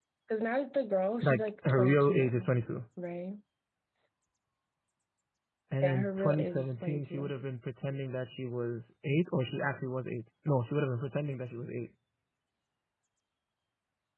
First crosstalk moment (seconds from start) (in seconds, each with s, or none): 1.2 s